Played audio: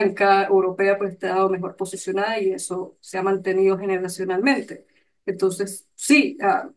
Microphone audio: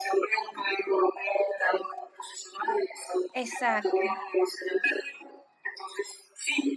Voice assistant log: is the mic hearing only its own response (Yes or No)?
No